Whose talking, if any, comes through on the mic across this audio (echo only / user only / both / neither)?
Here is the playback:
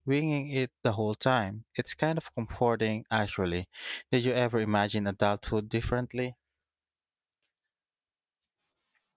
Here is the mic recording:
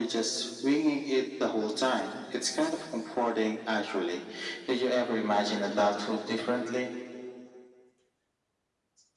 echo only